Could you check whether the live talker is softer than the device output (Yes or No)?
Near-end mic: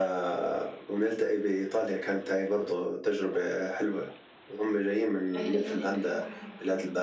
Yes